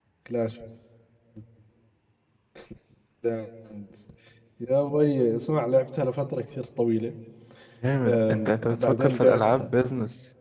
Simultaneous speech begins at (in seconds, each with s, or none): 8.1 s